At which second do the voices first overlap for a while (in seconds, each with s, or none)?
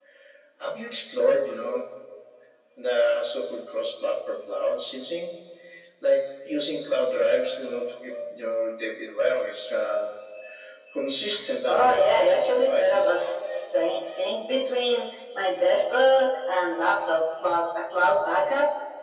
11.7 s